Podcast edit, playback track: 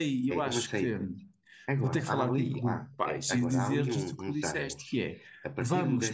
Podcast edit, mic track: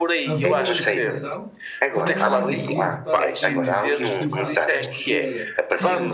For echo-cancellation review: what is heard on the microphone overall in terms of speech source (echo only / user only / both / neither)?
both